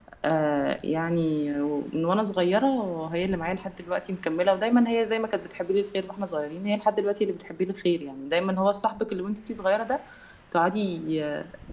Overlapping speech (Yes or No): No